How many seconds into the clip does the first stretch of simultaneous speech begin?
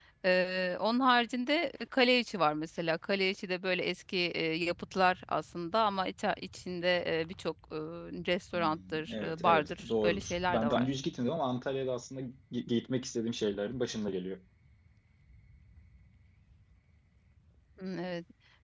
8.5 s

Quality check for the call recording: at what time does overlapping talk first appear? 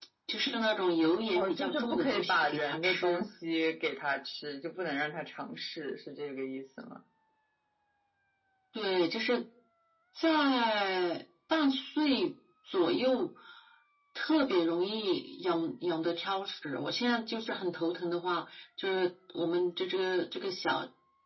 1.4 s

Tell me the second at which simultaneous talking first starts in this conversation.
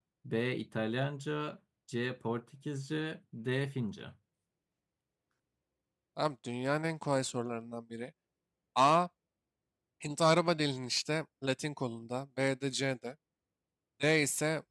none

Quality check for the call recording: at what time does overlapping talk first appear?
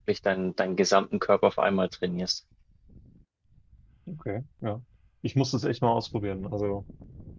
none

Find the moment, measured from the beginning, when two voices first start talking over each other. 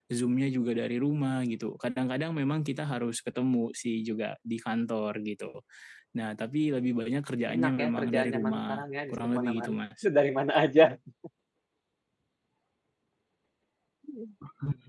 7.5 s

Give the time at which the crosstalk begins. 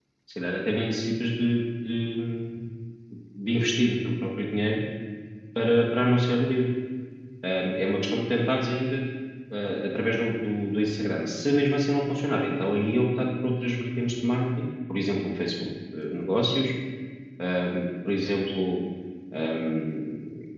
none

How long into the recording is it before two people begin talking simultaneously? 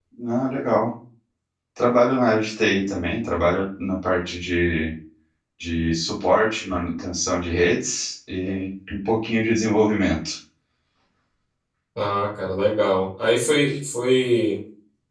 none

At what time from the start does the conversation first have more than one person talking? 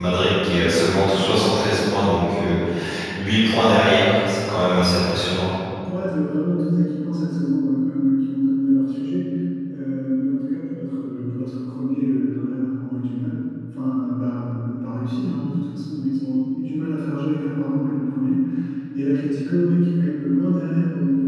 none

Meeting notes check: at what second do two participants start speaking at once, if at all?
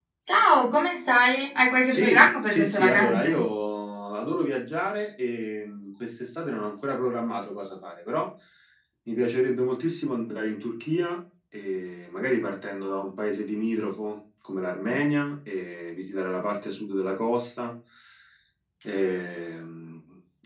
1.9 s

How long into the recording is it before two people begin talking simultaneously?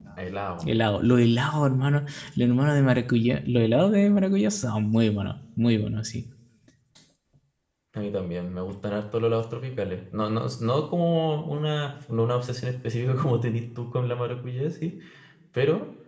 none

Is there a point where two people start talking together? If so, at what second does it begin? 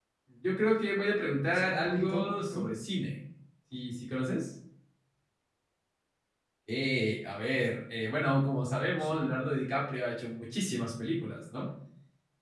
1.4 s

